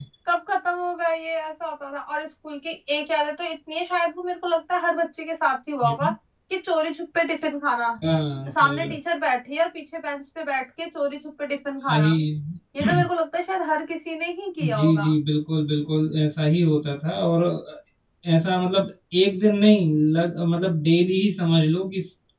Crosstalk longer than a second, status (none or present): none